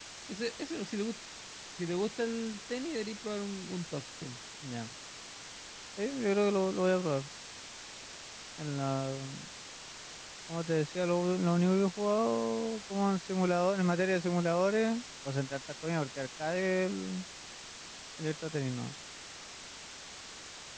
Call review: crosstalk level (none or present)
none